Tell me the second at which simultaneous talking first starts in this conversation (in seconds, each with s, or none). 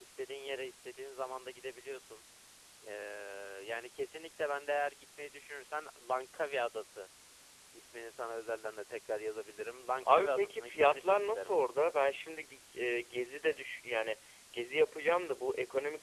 10.0 s